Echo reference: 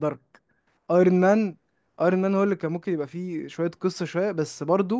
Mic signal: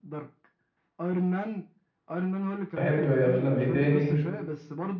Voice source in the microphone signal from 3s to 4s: both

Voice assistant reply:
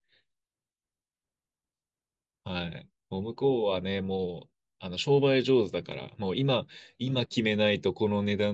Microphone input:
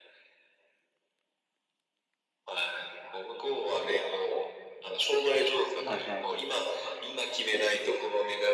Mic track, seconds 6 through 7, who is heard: both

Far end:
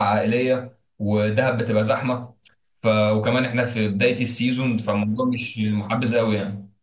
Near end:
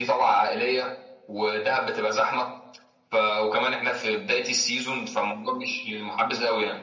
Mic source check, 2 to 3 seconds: echo only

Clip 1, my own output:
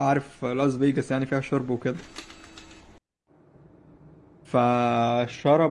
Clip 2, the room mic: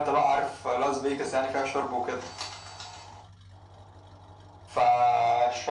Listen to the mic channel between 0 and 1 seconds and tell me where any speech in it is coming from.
echo only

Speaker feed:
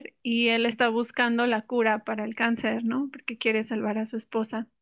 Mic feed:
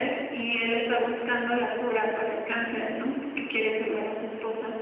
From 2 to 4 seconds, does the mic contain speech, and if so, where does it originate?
echo only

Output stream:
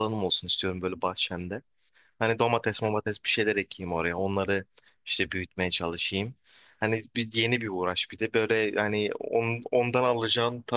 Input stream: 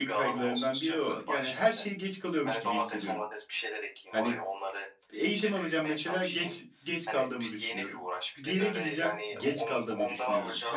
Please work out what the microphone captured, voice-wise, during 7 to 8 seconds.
both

